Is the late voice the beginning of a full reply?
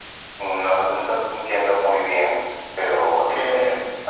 Yes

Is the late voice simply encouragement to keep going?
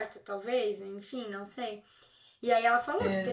Yes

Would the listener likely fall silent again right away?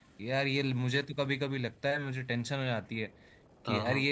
Yes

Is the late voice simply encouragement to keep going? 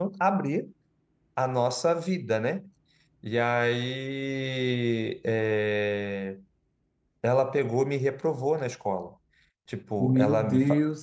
No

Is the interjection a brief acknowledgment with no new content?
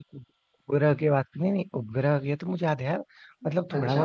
Yes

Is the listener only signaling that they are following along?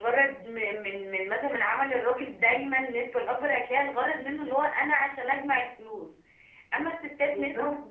Yes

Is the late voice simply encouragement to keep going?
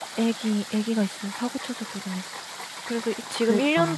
Yes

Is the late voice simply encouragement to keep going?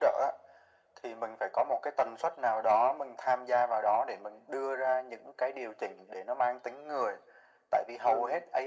Yes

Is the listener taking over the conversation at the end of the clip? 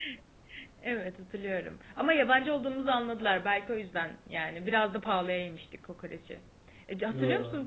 No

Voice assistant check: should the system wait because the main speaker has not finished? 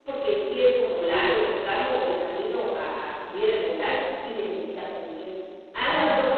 Yes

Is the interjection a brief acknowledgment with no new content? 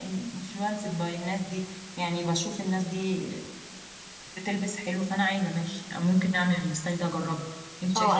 No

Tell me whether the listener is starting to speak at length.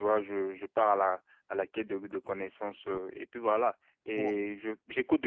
No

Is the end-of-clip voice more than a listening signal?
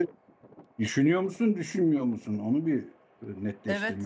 Yes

